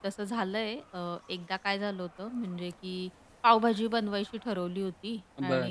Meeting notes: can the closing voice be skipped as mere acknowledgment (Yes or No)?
Yes